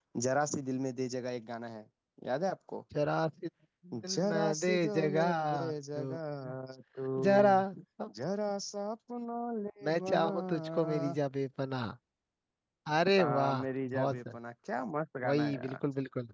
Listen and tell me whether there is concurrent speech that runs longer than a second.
Yes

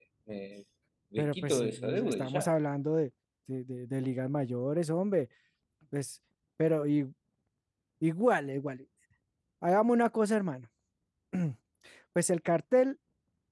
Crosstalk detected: Yes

